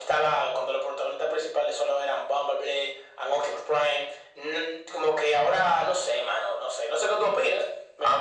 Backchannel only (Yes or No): No